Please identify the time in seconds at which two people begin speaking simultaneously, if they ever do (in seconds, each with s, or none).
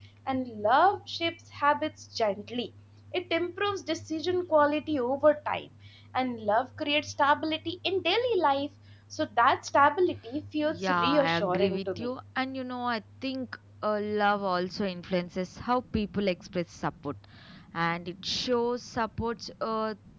10.7 s